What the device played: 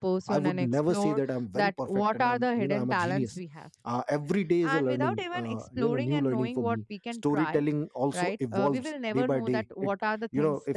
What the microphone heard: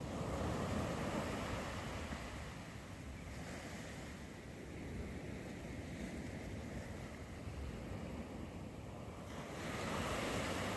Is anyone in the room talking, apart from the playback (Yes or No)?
No